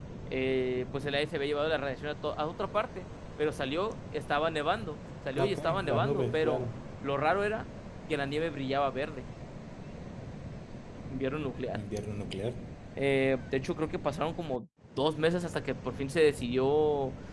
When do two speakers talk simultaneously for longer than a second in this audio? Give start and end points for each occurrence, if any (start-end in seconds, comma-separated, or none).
5.3-6.6